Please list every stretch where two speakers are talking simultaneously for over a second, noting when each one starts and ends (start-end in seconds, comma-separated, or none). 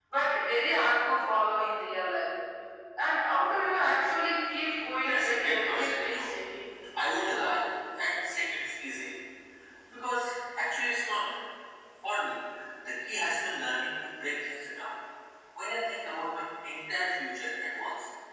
5.0-6.2